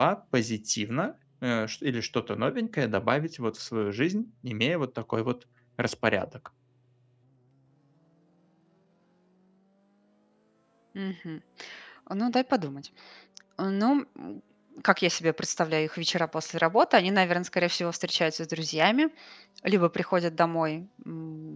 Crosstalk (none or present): none